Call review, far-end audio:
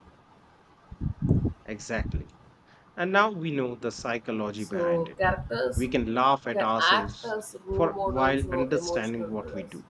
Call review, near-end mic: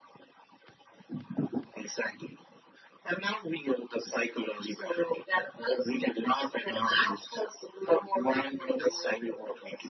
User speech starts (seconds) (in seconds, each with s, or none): none